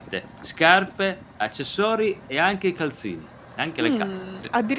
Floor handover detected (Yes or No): Yes